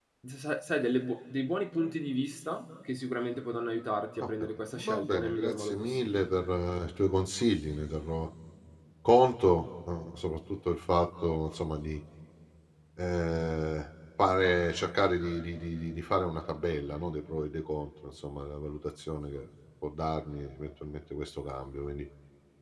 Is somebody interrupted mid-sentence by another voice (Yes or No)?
Yes